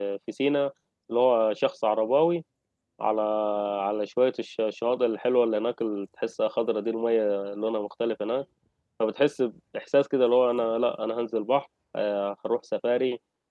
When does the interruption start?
none

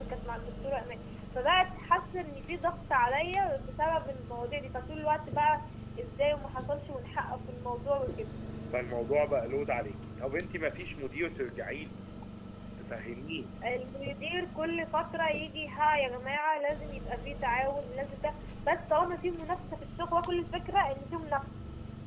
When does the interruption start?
none

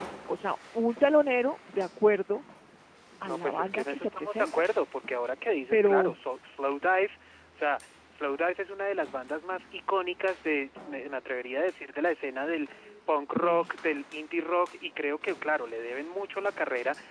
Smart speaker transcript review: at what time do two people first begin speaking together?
3.2 s

